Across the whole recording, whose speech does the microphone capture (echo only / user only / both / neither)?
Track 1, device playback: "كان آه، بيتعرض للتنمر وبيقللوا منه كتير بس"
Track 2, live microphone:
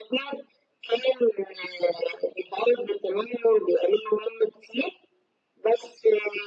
echo only